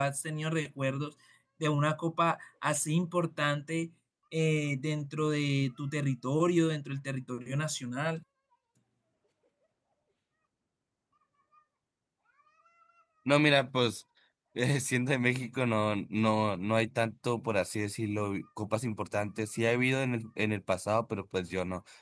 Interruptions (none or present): none